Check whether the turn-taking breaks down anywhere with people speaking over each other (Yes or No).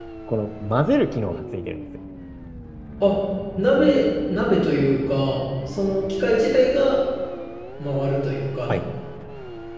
No